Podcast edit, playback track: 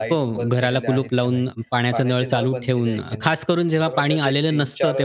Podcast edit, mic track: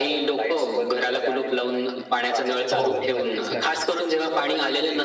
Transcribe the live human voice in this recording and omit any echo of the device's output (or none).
हो, हो. नक्कीच, नक्कीच.